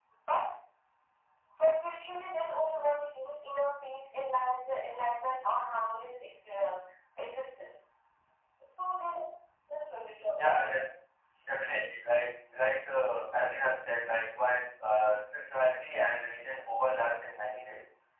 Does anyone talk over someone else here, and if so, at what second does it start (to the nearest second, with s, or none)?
none